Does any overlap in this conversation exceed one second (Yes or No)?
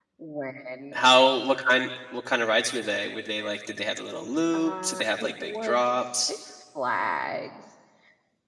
Yes